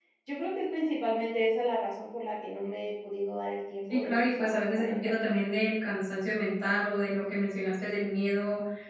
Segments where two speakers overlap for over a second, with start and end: 3.9-5.1

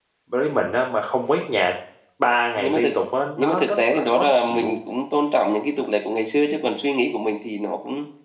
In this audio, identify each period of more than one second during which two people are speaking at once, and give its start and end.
3.4-4.8

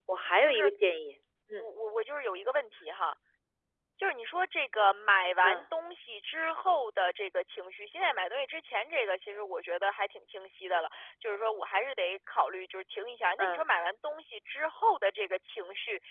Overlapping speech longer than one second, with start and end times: none

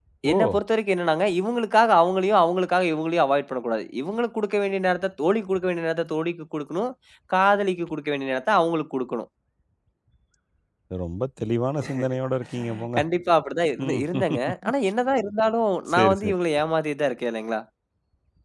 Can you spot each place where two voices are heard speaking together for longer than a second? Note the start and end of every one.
none

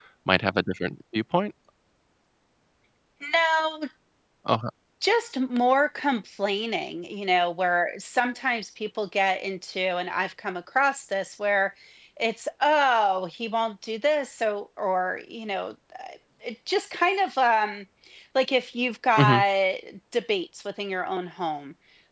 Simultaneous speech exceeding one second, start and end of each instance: none

